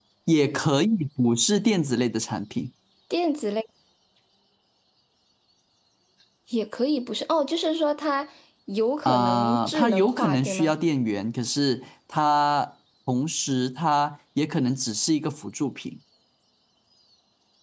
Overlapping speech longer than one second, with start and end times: 9.1-10.7

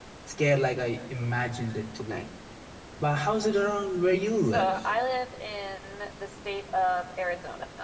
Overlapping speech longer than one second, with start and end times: none

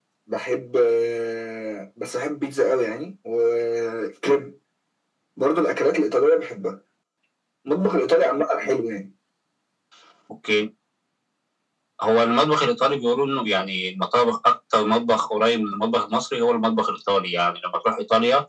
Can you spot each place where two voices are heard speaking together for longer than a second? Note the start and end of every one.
none

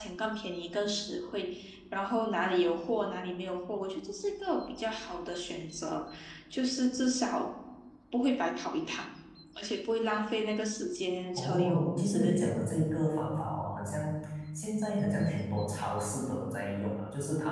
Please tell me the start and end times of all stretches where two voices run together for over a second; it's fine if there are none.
11.4-12.6

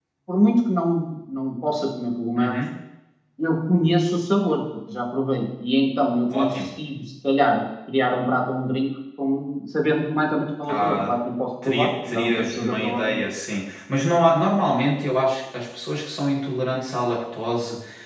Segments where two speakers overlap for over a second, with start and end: 11.6-13.2

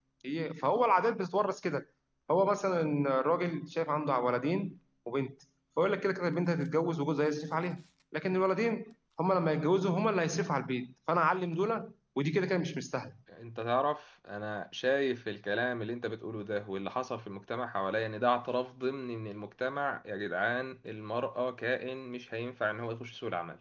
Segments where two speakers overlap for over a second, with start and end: none

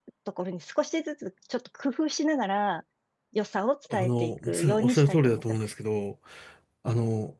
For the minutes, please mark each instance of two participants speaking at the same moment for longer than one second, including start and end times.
3.9-5.6

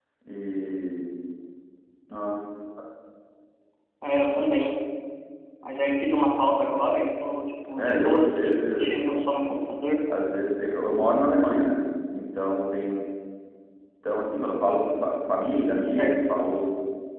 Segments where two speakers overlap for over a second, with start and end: 7.8-9.2

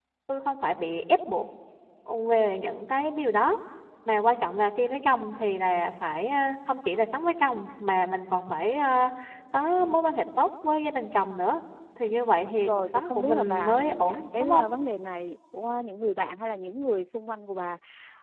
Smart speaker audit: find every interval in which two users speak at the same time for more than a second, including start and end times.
12.6-14.6

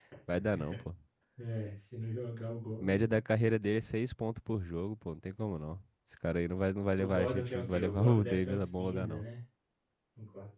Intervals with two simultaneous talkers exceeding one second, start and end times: 7.0-9.2

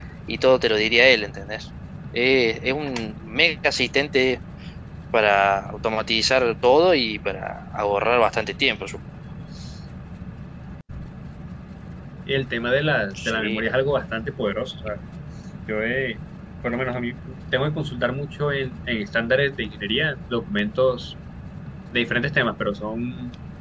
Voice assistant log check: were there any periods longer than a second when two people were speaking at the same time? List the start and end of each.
none

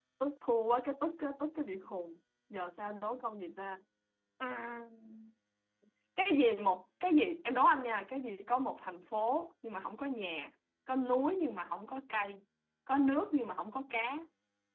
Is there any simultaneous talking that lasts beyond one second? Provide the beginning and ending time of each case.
none

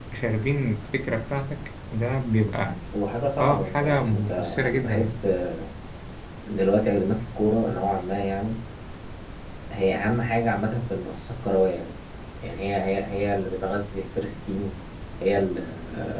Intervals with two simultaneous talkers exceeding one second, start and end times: 3.4-5.2

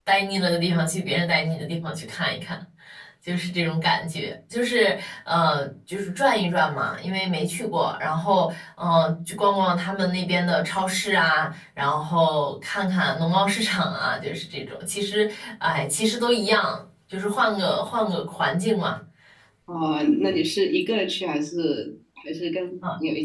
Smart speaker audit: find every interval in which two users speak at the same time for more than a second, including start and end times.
none

